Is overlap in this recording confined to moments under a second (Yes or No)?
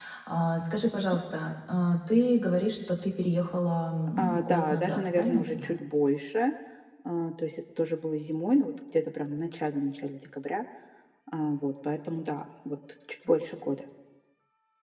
No